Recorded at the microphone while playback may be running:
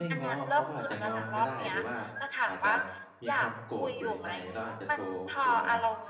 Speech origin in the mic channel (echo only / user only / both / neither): both